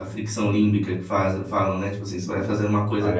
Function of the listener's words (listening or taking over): listening